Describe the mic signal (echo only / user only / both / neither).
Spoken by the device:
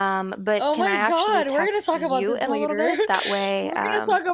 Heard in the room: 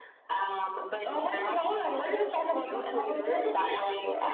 echo only